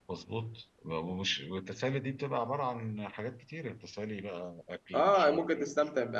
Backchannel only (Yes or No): No